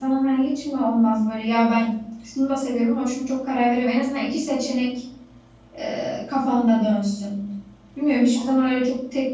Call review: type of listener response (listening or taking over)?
listening